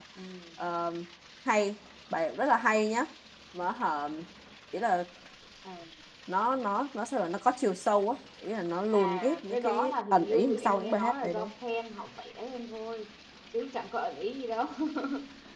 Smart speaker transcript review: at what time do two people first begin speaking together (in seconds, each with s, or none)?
8.9 s